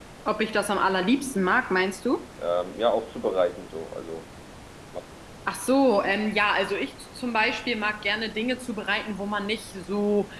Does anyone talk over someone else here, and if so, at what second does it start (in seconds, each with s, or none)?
none